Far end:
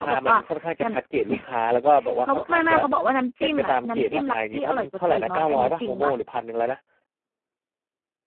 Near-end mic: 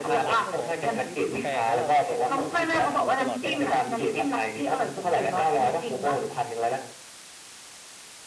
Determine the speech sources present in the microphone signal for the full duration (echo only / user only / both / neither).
both